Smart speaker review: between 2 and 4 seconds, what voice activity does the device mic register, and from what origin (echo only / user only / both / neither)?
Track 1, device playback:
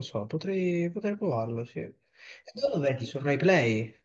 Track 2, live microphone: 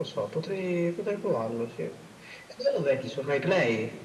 echo only